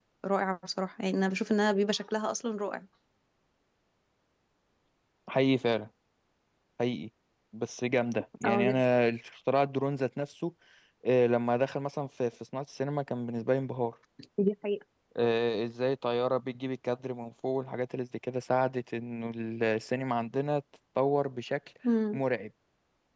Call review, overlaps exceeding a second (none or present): none